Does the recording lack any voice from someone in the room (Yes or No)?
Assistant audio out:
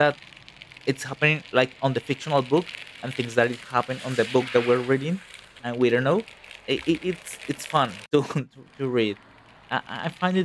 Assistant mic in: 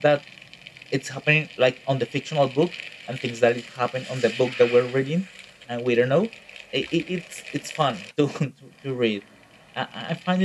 Yes